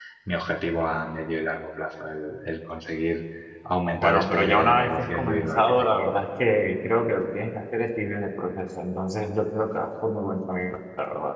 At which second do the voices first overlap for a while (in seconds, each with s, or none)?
4.0 s